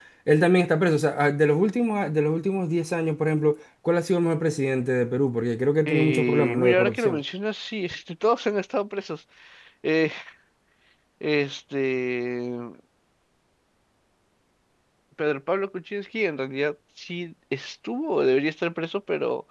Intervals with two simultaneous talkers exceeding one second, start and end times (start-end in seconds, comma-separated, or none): 5.9-7.2